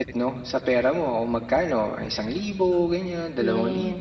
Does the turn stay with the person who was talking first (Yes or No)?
No